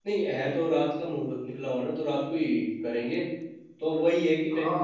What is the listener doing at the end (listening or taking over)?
listening